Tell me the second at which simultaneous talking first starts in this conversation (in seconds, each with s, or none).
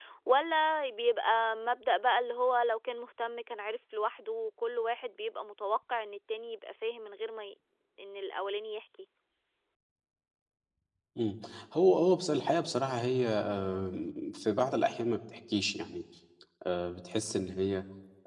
none